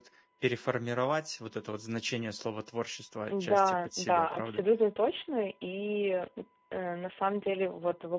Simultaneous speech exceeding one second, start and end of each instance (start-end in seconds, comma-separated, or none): 3.3-4.6